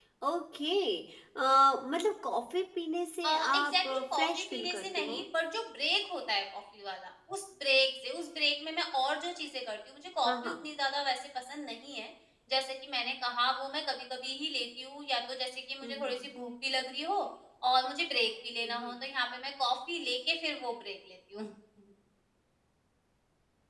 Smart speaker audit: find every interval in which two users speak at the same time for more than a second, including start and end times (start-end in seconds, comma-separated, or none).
3.2-5.2